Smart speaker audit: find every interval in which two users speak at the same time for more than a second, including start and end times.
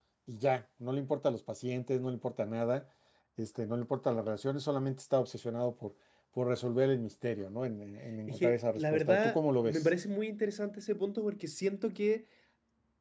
8.3-9.9

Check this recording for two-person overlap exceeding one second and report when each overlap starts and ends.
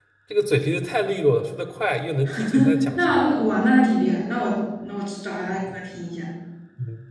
none

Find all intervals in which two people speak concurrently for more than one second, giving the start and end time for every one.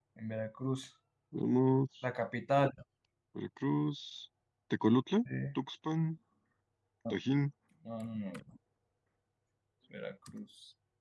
none

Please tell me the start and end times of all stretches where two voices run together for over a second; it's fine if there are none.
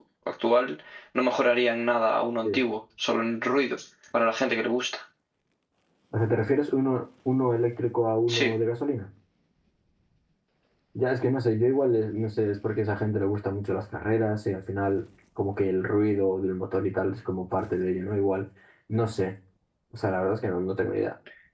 none

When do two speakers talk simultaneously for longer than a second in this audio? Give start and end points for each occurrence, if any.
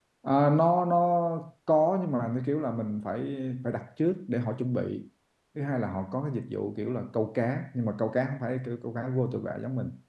none

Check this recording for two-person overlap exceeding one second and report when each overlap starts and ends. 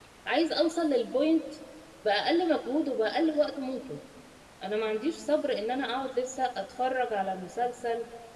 none

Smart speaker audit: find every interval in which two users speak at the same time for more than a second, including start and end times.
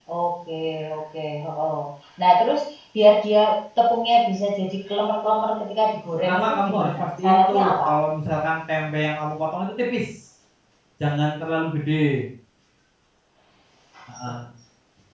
6.2-7.9

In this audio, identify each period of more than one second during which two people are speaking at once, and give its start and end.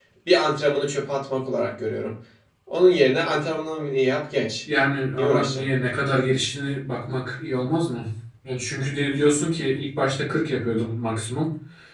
none

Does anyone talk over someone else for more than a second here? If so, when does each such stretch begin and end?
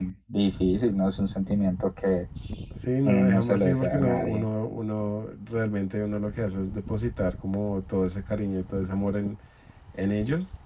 3.0-4.5

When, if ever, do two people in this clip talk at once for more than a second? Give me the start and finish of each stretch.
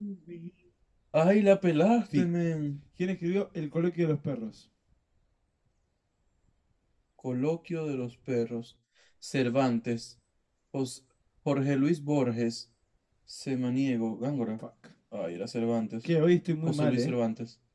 none

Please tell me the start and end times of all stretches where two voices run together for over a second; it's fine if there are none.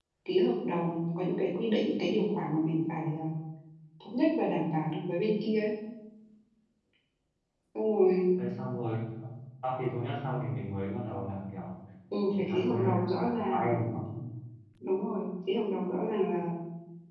12.5-13.8

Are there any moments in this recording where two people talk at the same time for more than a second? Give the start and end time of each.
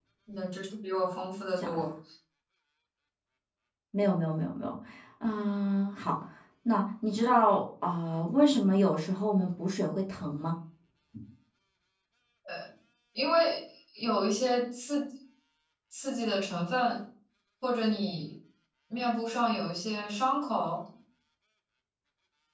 none

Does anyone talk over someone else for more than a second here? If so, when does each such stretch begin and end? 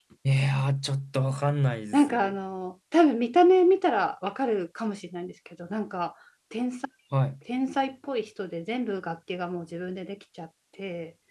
none

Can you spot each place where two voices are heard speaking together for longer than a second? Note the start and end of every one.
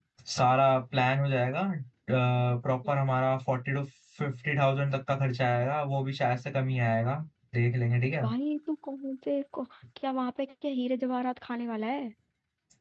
none

